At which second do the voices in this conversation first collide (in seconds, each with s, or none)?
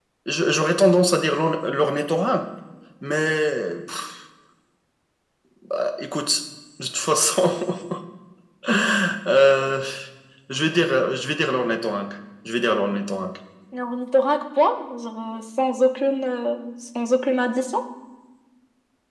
none